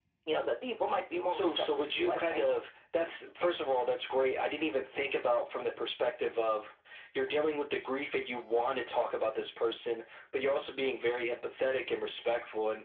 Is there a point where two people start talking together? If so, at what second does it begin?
1.3 s

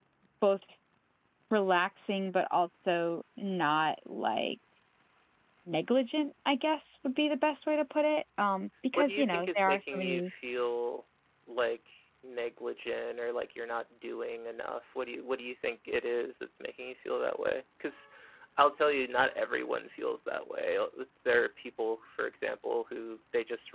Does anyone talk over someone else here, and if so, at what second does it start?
9.0 s

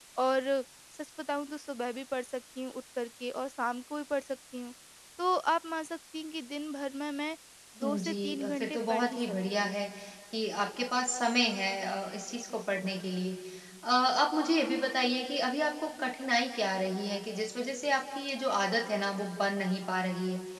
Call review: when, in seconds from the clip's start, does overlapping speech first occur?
7.8 s

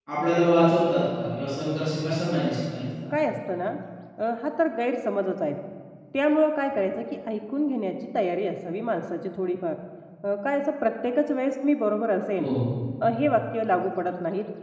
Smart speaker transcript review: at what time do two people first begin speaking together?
none

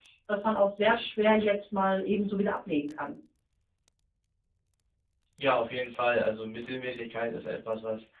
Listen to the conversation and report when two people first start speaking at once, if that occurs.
none

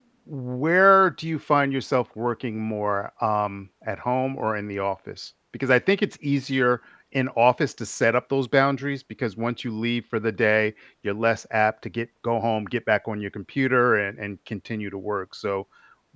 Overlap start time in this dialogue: none

